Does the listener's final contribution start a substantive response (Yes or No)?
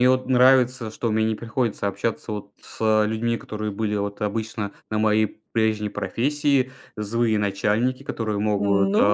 No